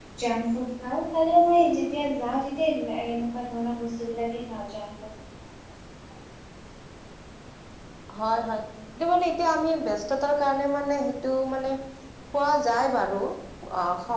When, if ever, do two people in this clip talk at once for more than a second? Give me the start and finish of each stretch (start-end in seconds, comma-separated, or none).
none